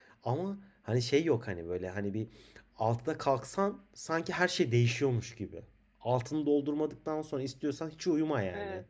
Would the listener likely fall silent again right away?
Yes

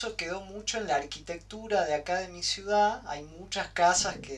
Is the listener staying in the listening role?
Yes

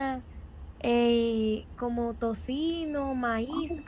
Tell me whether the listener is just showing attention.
No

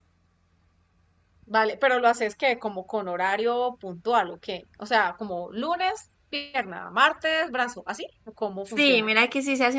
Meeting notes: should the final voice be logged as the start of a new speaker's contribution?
Yes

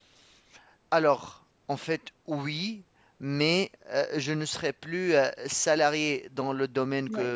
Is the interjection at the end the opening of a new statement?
No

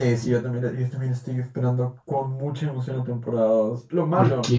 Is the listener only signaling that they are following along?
Yes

